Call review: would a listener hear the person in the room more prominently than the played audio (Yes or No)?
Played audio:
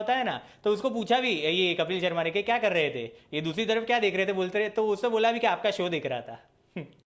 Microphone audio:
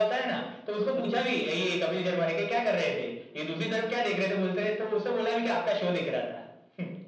No